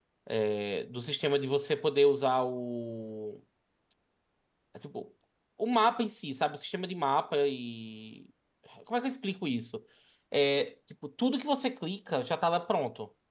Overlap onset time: none

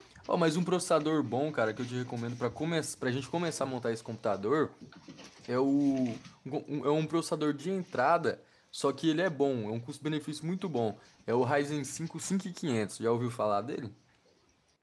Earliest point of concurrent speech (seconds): none

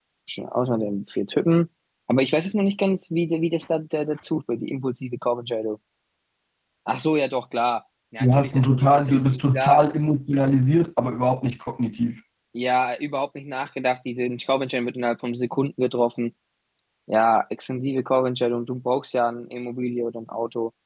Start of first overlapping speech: 8.2 s

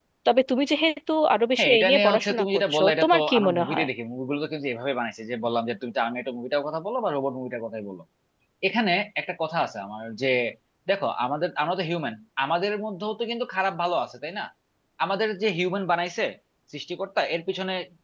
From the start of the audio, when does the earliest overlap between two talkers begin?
1.6 s

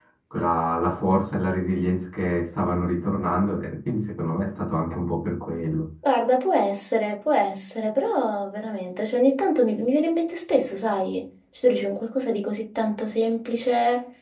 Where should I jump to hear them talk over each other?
none

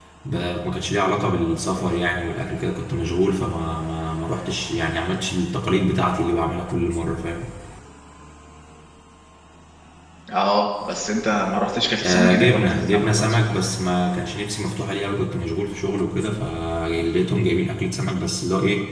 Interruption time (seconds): 12.0 s

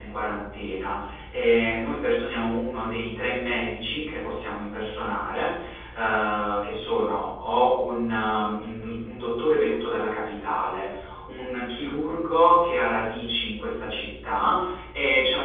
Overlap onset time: none

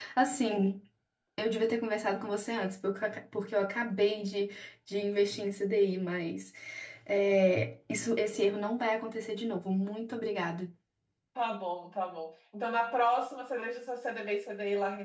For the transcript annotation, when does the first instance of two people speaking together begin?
none

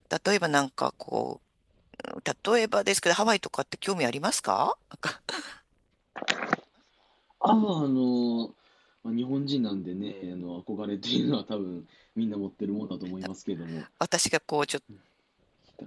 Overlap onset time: none

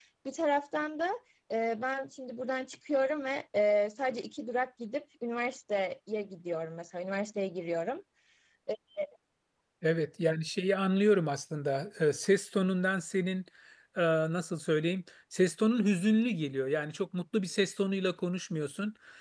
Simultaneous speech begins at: none

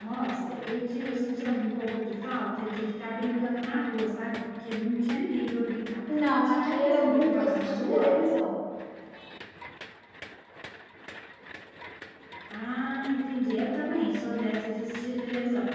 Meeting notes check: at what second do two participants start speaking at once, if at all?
6.4 s

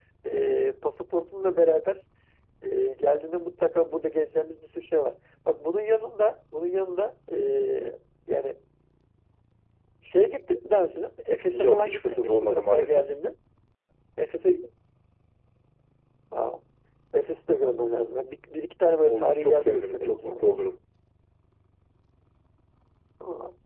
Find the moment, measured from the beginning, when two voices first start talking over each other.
11.5 s

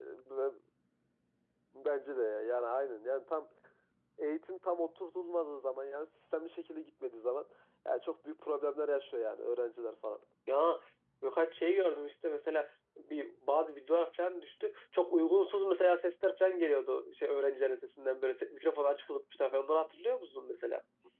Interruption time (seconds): none

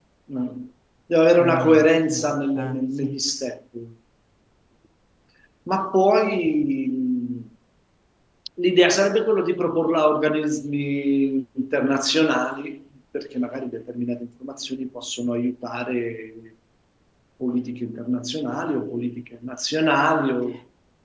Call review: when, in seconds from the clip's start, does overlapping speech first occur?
1.4 s

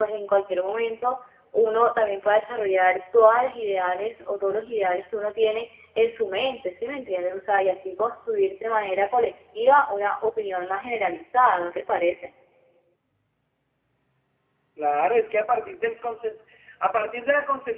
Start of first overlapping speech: none

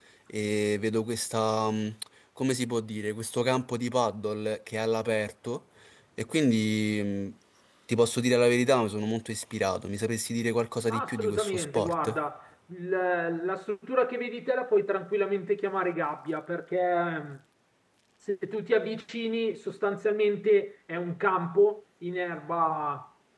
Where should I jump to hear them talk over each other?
10.9 s

